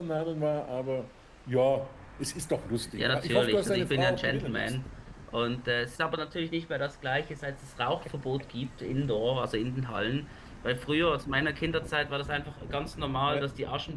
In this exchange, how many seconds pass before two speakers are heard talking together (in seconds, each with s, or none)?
3.0 s